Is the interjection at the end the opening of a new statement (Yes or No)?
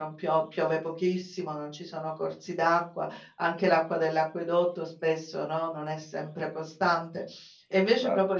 No